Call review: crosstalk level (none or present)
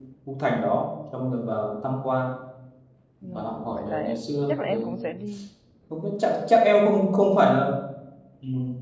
present